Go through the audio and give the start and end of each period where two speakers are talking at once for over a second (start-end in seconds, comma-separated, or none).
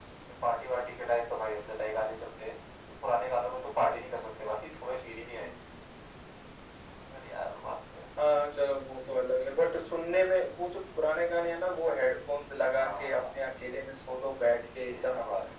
none